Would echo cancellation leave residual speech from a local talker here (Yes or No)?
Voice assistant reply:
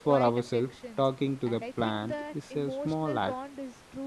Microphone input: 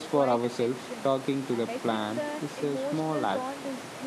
No